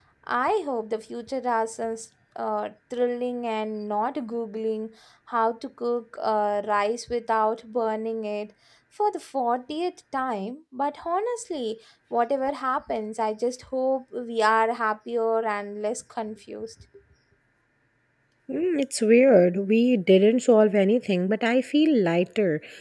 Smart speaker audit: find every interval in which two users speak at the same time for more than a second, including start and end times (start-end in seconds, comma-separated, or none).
none